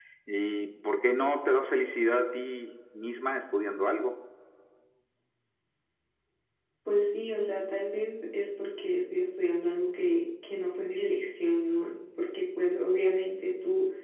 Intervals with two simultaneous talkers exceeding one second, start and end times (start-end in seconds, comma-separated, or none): none